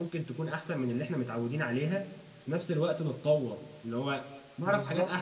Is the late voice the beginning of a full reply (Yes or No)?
Yes